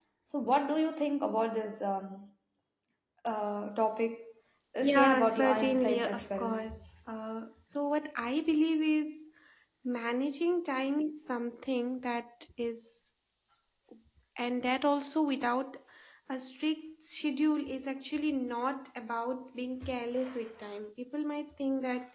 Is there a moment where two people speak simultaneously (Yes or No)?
Yes